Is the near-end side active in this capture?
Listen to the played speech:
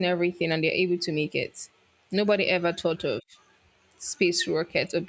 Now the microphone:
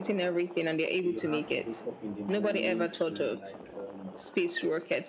Yes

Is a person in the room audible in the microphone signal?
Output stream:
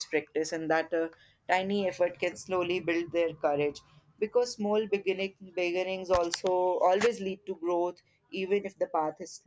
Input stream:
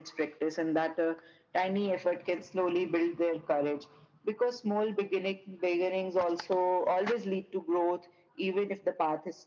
No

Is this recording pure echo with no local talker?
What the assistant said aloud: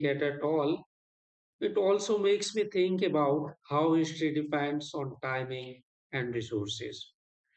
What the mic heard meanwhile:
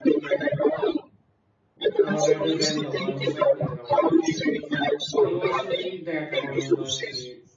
No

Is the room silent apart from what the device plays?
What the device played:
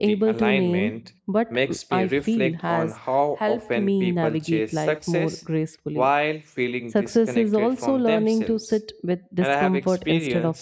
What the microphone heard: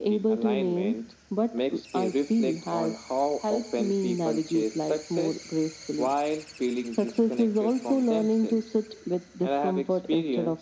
Yes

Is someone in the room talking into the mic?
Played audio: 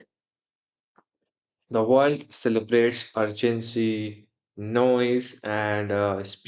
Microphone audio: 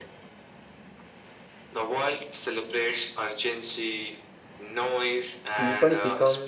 Yes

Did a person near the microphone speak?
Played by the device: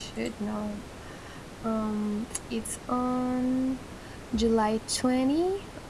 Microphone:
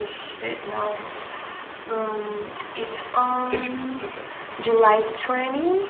Yes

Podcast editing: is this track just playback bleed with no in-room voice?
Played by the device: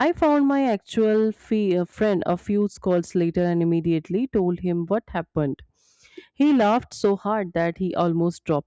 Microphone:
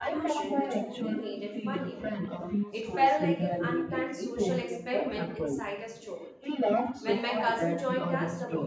No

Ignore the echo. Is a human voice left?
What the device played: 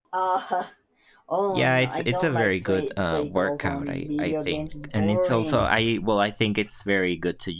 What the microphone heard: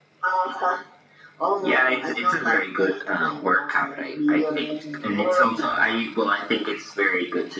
No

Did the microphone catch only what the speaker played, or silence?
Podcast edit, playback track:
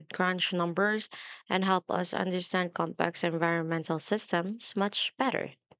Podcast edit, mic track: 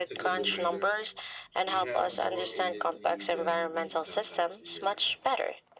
No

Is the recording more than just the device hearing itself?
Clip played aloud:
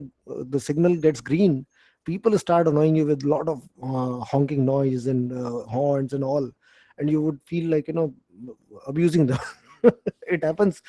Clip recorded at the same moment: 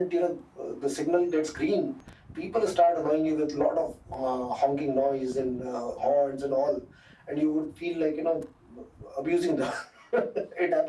No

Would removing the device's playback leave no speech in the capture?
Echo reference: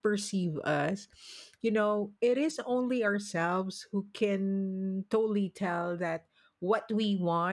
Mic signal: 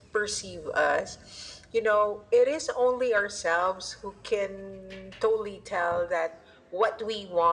Yes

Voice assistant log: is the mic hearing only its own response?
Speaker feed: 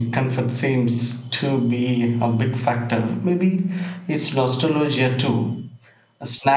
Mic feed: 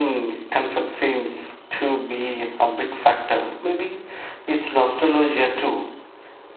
Yes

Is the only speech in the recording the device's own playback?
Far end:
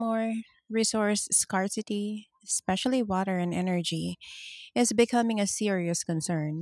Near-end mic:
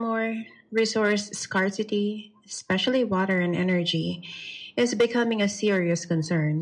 Yes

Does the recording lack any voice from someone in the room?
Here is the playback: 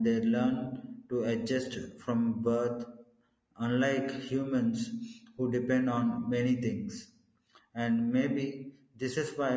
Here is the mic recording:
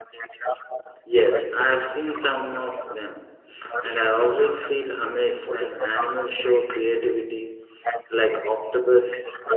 No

